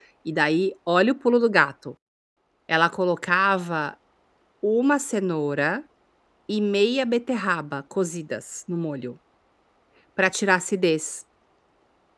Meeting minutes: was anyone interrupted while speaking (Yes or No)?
No